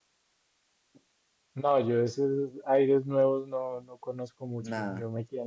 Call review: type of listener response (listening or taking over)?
listening